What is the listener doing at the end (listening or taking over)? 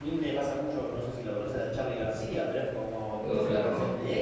listening